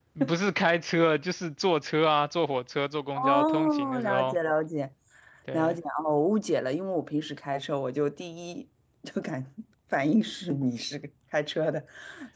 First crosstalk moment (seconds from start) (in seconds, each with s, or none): 3.1 s